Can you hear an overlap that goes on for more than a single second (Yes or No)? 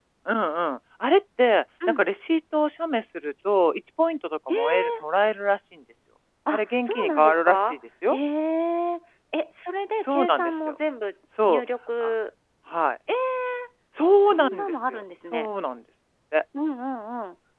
Yes